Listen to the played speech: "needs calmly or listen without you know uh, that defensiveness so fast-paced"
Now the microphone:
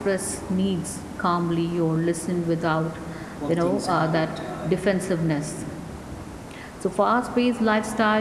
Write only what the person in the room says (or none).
work things out uh,